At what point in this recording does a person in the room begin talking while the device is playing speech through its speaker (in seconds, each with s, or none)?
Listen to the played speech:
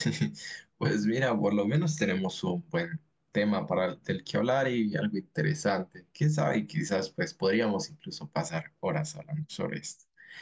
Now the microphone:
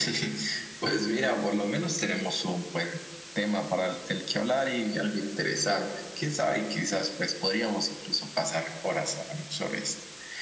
none